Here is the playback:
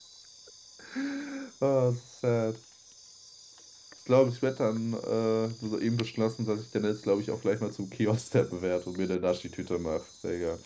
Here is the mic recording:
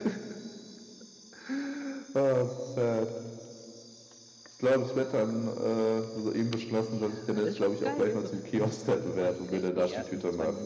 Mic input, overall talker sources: both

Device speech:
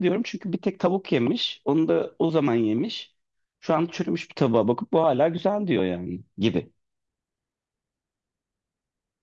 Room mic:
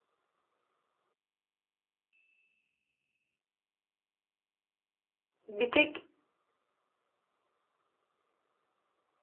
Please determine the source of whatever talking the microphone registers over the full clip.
user only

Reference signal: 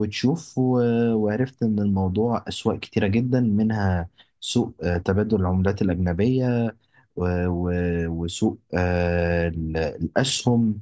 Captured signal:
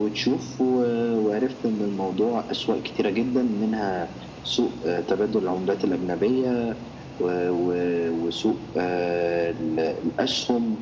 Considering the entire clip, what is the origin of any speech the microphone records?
echo only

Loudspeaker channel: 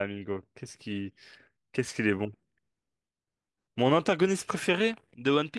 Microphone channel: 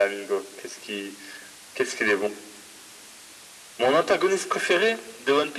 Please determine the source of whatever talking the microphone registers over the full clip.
echo only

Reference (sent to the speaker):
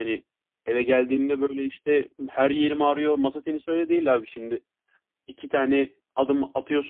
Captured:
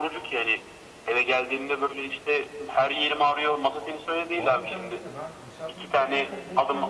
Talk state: both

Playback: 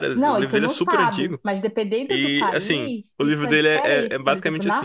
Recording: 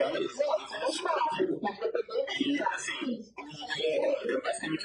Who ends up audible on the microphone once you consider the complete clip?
echo only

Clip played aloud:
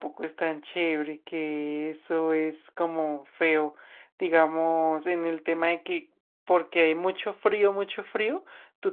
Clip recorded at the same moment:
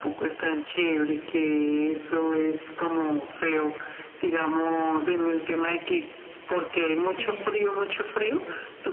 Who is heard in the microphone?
both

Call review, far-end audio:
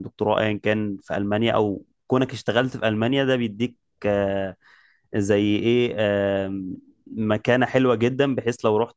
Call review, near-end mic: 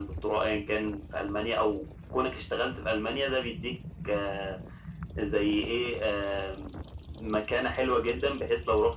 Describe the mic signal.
echo only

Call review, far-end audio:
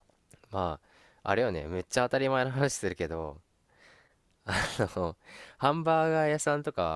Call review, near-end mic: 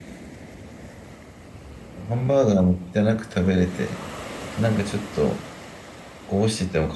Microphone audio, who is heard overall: user only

